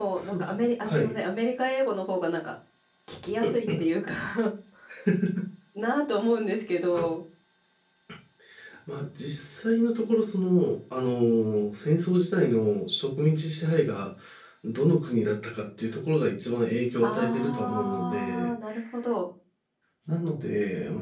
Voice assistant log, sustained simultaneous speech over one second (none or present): present